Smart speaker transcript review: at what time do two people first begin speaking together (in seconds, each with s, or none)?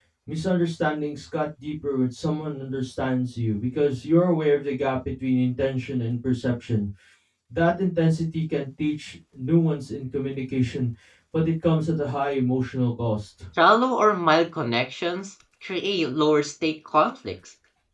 none